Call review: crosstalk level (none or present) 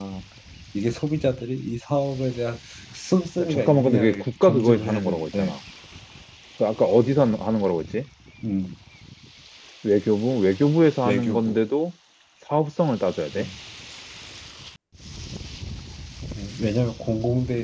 present